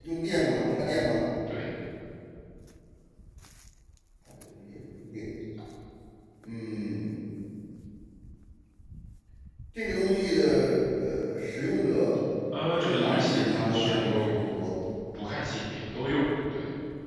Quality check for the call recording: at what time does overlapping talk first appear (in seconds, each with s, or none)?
12.5 s